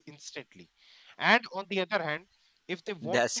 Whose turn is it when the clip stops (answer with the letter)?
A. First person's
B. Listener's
A